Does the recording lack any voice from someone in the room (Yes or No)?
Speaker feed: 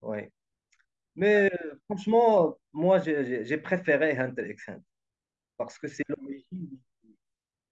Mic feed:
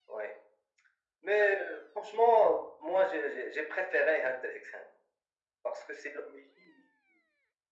Yes